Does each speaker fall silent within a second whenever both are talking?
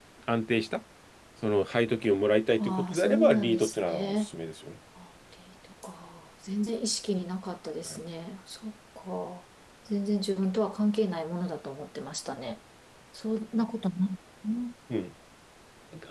No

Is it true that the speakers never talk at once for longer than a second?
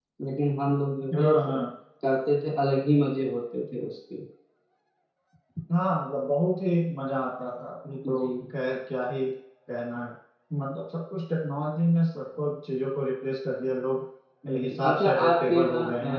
No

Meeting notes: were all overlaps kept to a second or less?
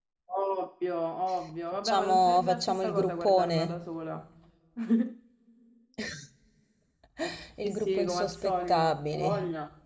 No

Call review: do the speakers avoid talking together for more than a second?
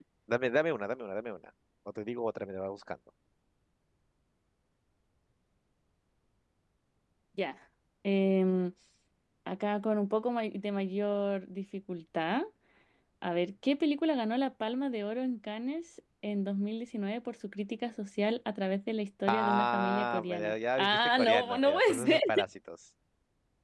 No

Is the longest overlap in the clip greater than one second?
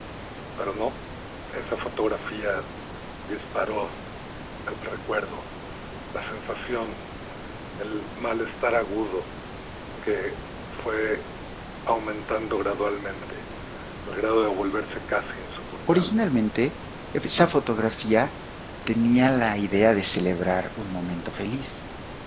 No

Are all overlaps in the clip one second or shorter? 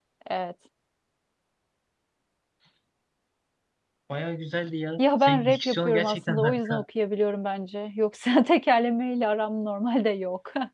No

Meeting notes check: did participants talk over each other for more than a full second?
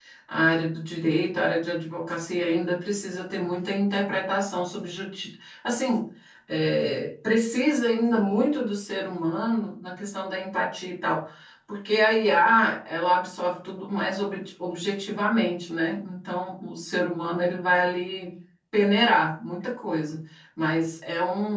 No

